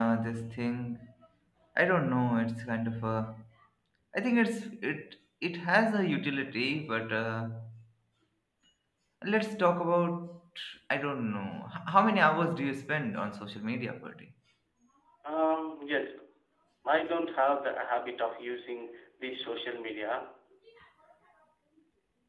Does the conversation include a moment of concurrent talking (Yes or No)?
No